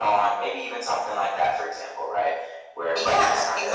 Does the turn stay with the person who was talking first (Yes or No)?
No